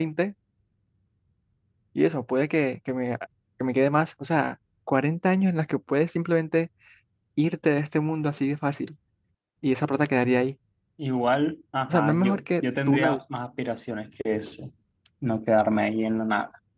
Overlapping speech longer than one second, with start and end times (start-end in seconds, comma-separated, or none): 11.9-13.2